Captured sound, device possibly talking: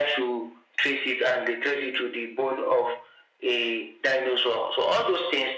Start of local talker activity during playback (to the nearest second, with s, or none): none